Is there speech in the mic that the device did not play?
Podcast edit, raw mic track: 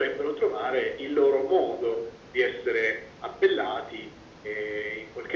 No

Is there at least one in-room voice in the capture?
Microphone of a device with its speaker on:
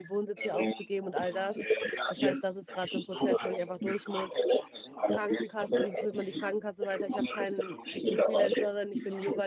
Yes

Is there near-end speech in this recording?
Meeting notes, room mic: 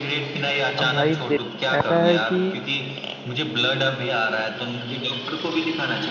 Yes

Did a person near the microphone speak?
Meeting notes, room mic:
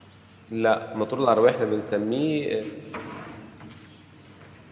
Yes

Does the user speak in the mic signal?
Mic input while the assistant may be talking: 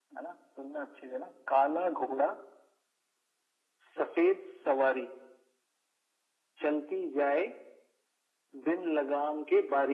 No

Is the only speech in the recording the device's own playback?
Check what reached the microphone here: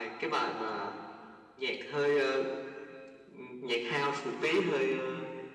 Yes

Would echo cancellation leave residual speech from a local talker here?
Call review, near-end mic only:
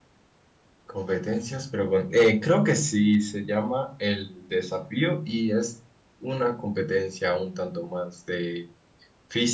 Yes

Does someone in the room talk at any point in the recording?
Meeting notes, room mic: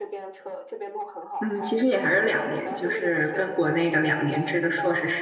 Yes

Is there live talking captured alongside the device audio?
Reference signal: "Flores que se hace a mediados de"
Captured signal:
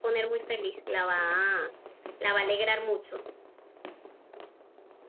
Yes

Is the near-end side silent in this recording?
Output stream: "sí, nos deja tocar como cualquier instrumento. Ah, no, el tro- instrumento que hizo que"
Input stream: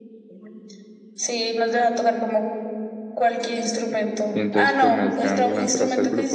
No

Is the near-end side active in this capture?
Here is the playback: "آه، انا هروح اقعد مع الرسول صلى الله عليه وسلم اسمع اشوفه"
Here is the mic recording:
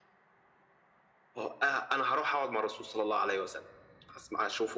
No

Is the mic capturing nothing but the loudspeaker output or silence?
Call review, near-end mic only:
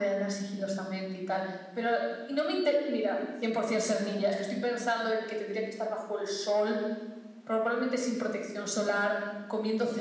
Yes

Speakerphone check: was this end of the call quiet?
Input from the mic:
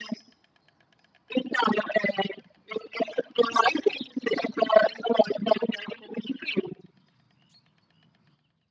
Yes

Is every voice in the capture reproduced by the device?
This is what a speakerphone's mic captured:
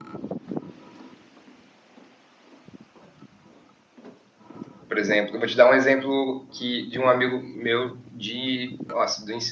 No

